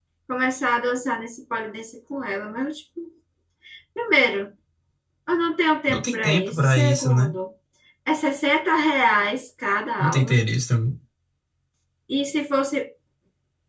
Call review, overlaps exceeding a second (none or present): present